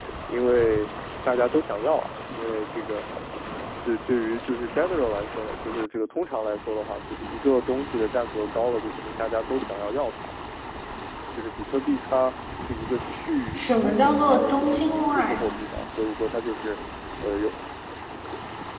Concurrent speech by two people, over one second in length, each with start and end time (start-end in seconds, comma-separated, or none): 13.6-15.4